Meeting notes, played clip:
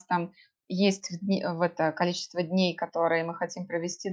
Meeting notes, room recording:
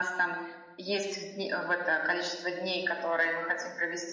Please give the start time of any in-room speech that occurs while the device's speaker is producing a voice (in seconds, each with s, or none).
none